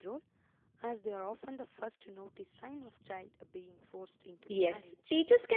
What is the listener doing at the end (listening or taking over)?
taking over